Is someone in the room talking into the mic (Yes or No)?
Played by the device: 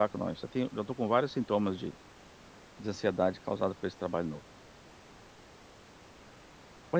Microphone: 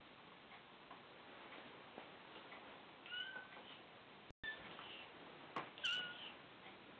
No